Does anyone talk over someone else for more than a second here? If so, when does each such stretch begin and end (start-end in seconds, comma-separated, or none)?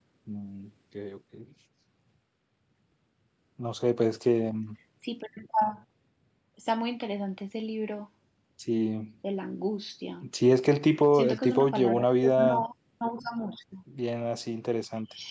11.1-12.6